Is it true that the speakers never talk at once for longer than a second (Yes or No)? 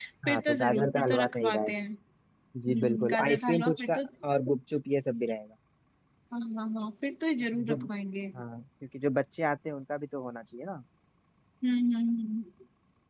No